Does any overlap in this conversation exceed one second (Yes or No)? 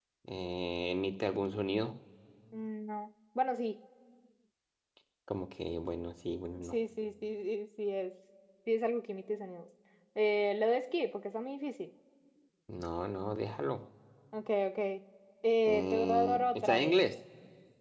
Yes